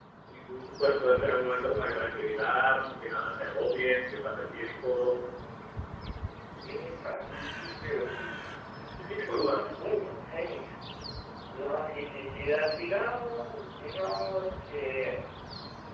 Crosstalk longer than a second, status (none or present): none